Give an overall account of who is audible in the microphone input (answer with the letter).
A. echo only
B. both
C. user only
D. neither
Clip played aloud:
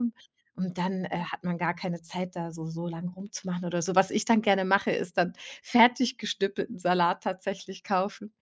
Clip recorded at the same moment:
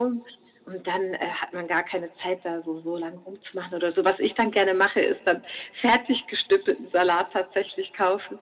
A